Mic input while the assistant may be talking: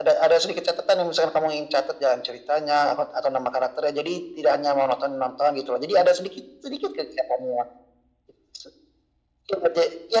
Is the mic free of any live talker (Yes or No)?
Yes